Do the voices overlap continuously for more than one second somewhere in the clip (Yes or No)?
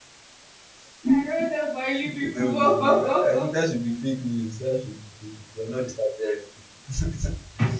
Yes